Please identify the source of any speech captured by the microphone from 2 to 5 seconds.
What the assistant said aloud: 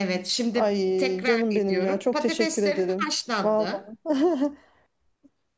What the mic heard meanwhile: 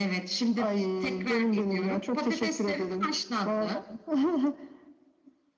echo only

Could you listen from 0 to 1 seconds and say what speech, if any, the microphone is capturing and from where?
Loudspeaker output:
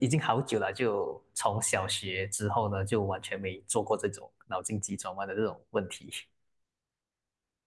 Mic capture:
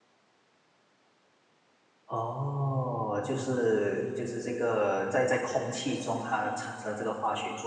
neither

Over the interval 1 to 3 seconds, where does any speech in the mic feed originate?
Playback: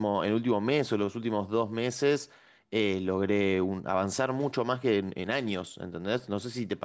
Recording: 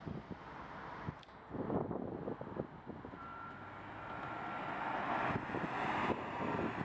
neither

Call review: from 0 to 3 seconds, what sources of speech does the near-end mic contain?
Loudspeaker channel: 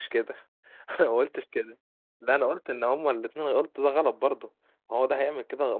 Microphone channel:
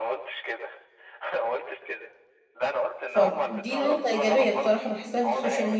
echo only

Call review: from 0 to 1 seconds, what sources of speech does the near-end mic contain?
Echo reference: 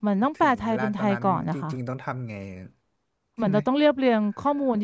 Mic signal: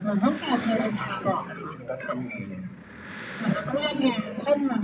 echo only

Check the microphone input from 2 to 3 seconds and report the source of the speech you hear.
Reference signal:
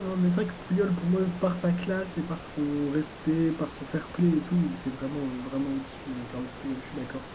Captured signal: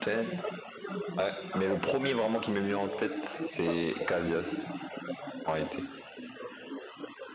both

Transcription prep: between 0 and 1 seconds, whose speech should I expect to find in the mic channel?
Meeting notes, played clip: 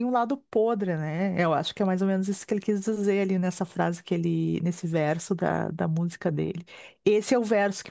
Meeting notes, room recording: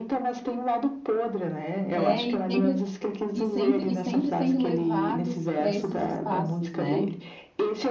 echo only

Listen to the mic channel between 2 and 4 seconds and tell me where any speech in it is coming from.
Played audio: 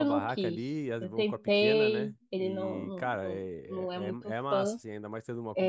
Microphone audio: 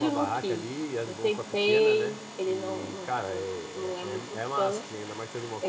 echo only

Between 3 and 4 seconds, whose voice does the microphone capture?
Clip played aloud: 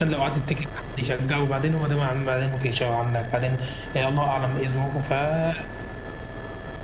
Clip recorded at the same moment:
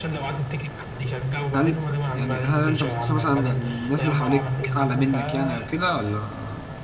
both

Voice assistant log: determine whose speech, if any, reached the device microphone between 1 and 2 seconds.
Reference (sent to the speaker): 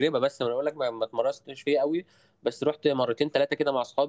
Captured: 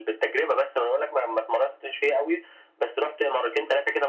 echo only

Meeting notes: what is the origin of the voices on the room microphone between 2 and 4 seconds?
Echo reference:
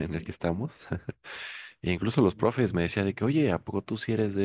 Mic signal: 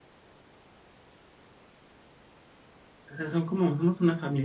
user only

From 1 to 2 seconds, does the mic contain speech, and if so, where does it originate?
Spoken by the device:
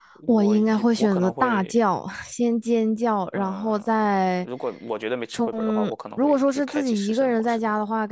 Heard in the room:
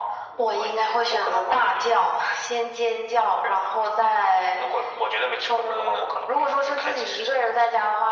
echo only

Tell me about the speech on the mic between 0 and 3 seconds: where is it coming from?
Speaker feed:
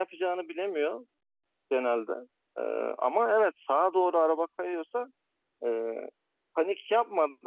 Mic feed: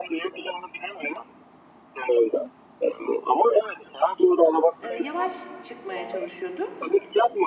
echo only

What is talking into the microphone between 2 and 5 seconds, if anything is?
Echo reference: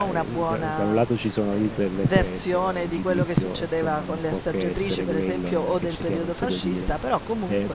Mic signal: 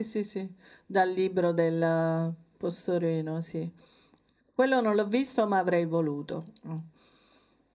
user only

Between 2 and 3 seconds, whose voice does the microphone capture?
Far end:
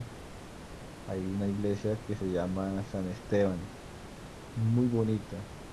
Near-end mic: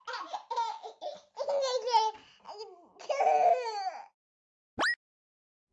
neither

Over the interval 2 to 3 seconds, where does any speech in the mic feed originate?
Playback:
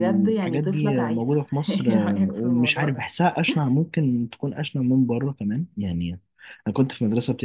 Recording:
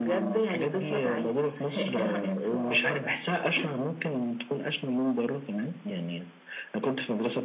echo only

